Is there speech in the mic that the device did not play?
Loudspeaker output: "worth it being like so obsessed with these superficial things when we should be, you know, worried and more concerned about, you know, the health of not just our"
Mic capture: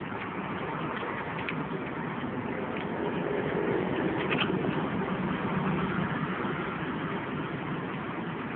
No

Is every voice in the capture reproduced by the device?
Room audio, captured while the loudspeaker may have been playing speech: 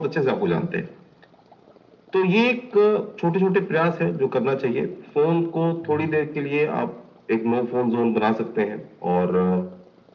No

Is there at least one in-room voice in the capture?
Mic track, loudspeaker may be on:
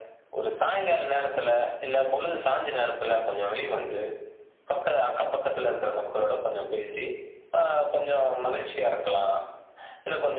No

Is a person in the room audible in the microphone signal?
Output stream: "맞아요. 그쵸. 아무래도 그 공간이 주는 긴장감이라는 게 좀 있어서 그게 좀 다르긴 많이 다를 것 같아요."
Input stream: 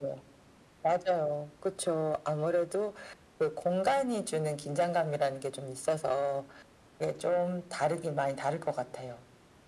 No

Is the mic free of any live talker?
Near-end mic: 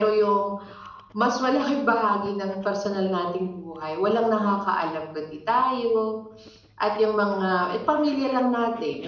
Yes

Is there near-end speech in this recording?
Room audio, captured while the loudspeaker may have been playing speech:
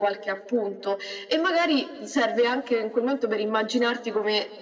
No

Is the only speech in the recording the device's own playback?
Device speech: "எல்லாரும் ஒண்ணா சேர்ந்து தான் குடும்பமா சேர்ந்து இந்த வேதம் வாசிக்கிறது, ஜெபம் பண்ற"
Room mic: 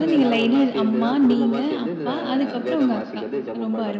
No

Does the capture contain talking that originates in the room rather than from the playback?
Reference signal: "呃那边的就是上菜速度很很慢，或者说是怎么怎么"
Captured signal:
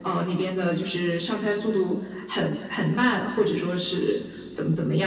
No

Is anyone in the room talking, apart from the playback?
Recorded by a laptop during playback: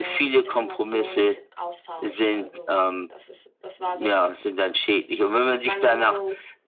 Yes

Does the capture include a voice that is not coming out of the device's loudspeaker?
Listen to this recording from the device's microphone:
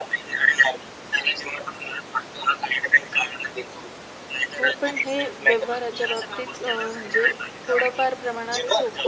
Yes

